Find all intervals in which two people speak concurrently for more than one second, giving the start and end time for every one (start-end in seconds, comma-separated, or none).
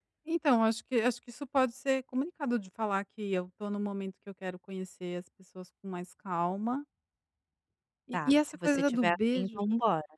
8.1-9.6